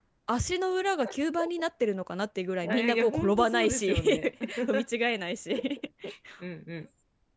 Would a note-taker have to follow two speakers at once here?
Yes, from 2.6 s

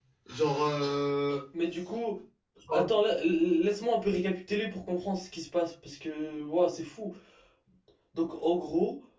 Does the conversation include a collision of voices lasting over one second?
No

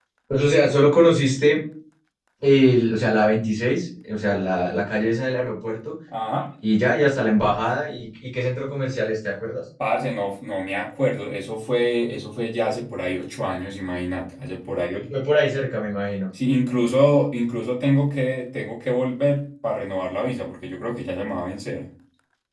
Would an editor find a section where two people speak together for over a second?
No

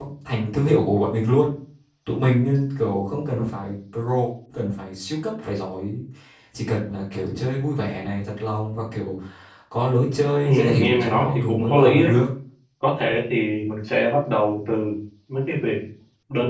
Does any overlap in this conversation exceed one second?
Yes, from 10.4 s

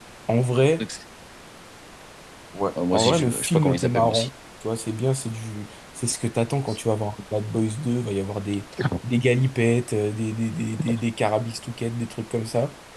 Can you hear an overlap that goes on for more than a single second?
Yes, from 2.9 s

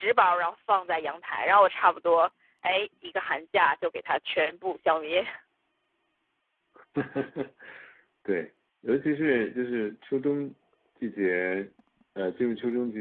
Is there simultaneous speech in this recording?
No

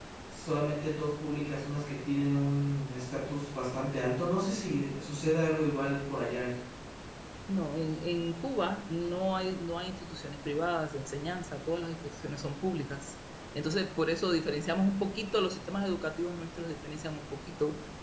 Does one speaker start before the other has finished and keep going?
No

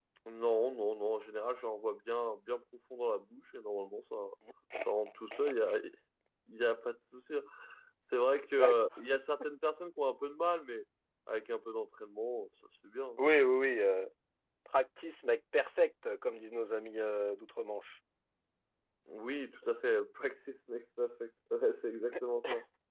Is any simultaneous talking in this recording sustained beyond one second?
No

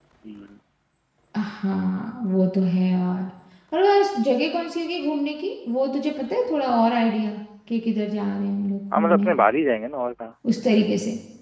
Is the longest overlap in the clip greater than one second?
No

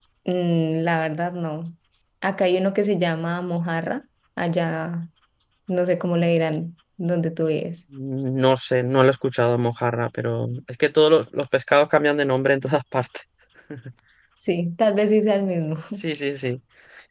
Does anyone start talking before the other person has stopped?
No

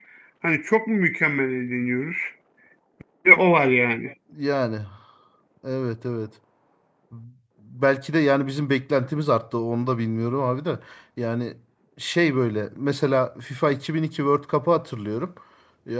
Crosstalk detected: No

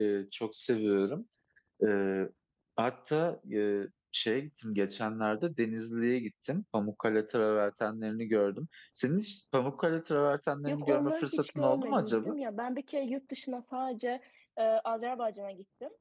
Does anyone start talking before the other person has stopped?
Yes, from 10.7 s

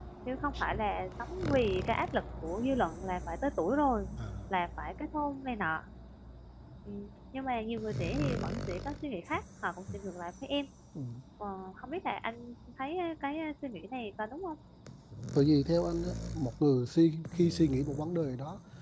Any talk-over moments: No

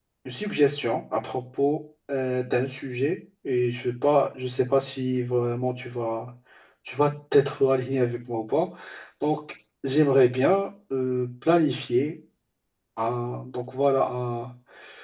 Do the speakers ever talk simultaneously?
No

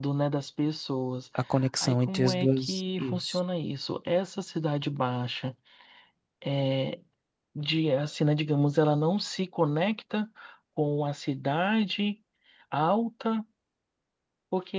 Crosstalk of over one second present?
Yes, from 1.8 s

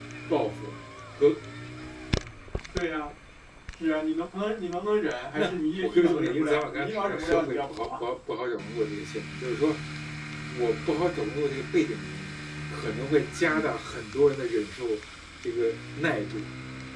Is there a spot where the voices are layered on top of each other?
Yes, from 5.4 s

